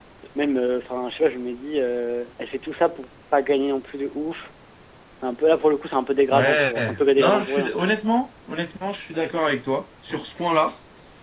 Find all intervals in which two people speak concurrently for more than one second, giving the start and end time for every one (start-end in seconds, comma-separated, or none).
6.3-7.7